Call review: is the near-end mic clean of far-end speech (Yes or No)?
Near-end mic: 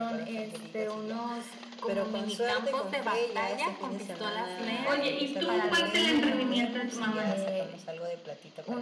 No